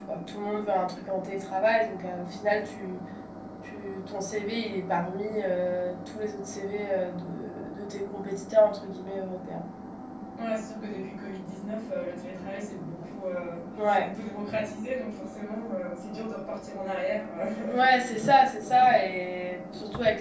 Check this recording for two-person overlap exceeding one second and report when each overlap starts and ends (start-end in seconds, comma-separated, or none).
none